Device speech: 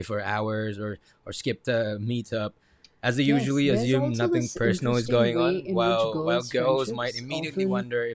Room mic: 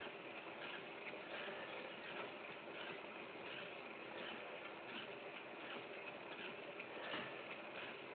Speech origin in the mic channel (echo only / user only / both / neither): neither